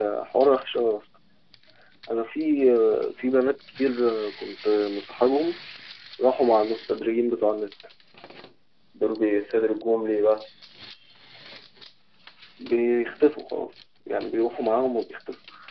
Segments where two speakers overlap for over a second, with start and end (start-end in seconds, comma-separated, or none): none